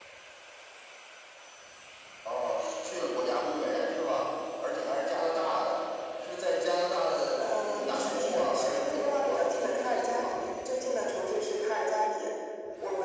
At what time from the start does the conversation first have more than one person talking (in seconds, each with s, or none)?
7.4 s